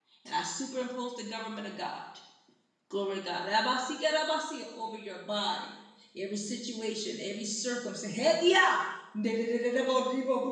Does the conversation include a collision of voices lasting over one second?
No

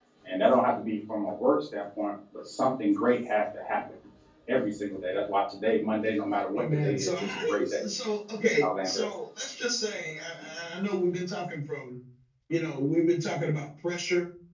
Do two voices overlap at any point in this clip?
Yes, from 6.6 s

